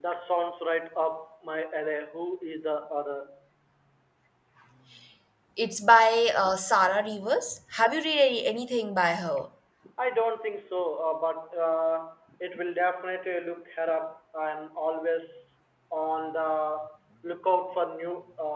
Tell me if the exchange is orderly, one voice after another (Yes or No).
Yes